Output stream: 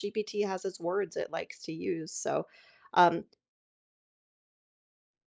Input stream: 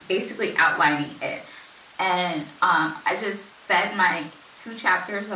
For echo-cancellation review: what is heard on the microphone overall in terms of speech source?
user only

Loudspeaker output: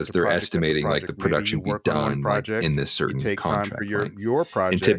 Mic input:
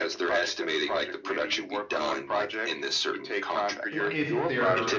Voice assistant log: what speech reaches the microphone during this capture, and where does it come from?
both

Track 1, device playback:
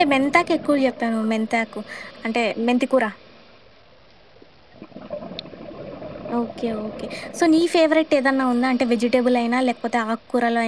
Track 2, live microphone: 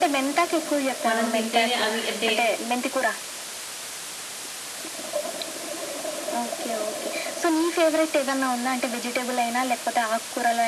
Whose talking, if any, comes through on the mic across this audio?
both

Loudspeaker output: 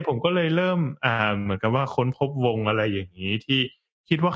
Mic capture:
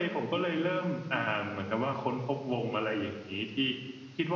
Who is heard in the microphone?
both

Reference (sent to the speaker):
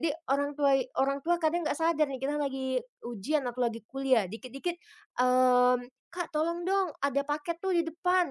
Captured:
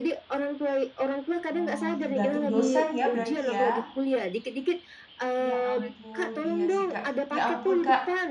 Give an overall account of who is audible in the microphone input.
both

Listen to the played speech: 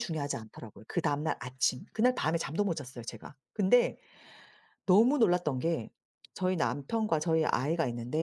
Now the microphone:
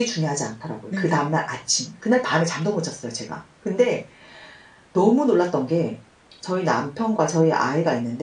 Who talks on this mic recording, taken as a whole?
both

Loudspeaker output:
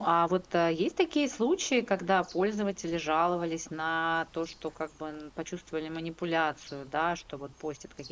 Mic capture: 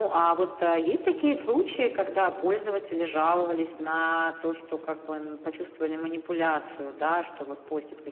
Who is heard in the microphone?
echo only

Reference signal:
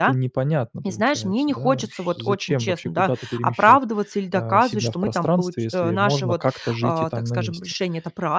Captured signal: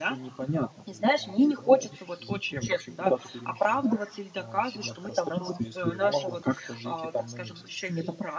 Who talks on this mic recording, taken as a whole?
echo only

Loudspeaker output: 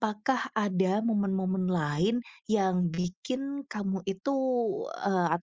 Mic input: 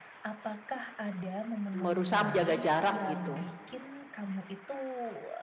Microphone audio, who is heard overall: both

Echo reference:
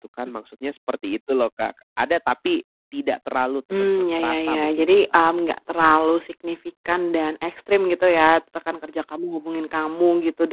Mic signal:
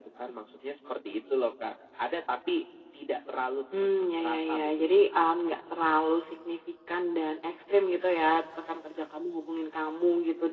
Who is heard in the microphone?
echo only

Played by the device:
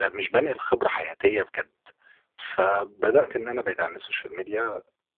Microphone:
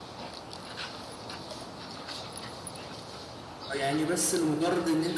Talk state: user only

